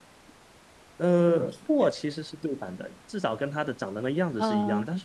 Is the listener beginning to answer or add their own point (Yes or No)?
No